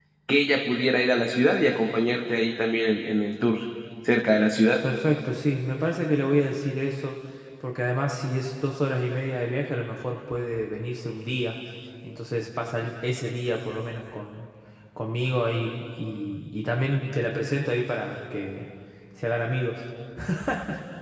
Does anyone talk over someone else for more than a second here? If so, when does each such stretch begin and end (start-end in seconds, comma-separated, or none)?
none